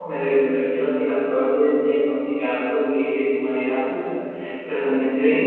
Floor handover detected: No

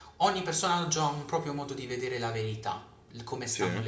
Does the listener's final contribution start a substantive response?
No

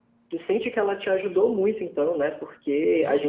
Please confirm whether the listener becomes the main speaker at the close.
Yes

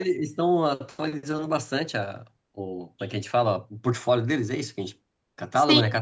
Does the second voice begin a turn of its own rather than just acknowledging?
Yes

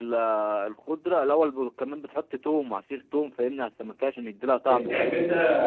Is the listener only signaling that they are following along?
No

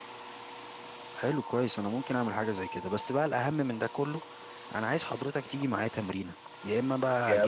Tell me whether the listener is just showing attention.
Yes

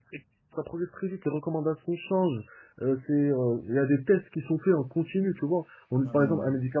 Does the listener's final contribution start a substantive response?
No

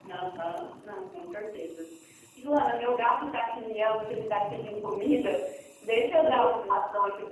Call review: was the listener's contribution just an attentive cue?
Yes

